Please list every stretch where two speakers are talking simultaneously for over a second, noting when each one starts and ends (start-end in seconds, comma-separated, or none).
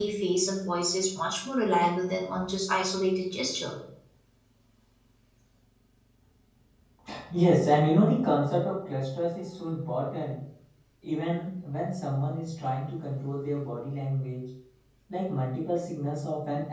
none